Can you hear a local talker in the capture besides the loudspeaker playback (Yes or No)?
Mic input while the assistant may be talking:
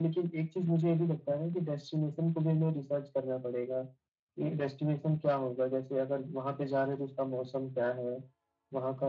No